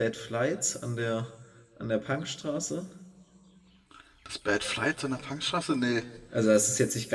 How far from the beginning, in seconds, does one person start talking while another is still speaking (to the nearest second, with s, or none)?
none